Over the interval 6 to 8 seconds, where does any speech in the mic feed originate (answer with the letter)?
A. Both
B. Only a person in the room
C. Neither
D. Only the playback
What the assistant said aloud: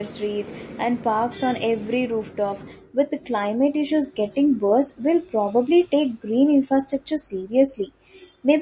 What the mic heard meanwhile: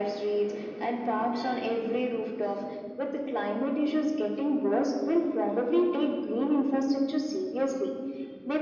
D